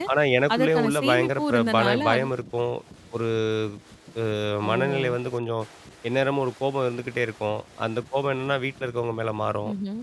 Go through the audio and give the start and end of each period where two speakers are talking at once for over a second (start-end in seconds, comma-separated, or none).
0.5-2.3